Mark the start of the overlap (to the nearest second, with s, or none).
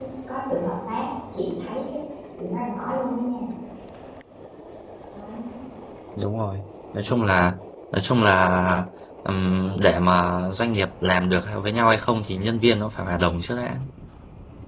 none